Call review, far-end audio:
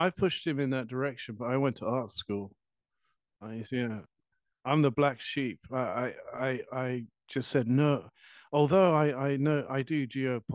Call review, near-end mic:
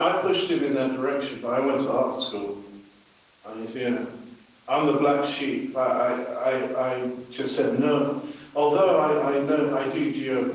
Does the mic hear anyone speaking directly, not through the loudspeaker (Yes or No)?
No